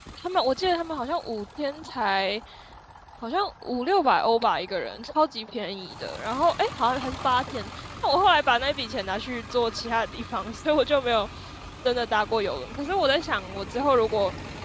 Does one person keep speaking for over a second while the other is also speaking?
No

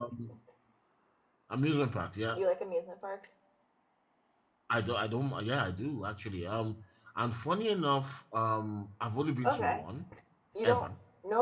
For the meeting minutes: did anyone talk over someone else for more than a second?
No

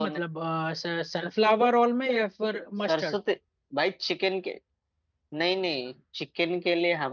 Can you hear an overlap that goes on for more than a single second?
No

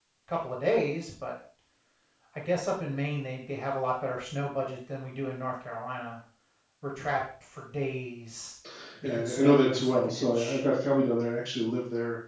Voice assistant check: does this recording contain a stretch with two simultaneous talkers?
Yes, from 9.0 s

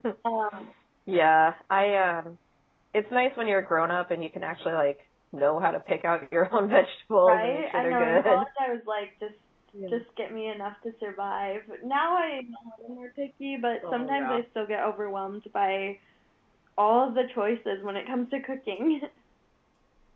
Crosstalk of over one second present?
Yes, from 7.2 s

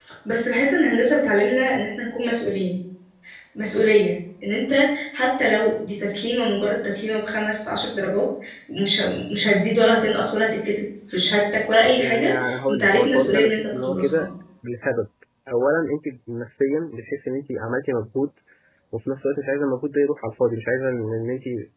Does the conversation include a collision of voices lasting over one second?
Yes, from 12.0 s

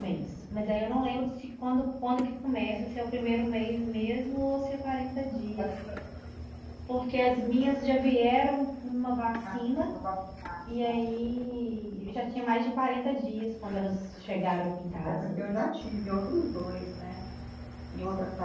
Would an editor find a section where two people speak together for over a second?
No

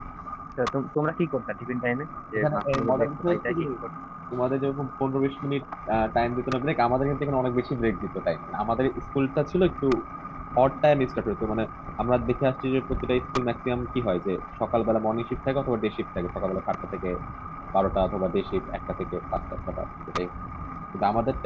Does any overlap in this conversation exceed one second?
Yes, from 2.4 s

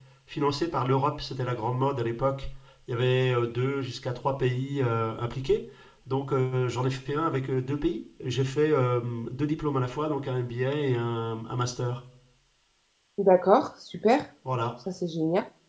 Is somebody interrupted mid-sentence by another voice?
No

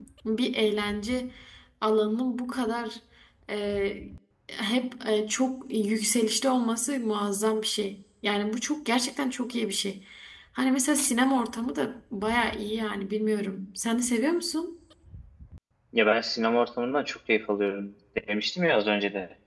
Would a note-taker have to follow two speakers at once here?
No

